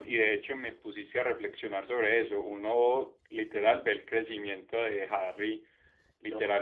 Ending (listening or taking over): listening